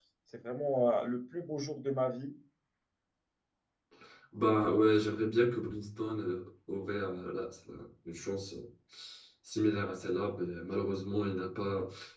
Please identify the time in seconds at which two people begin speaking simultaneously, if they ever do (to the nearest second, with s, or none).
none